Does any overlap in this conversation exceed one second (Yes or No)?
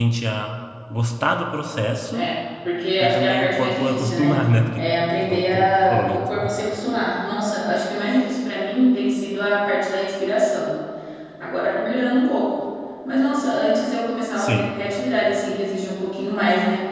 Yes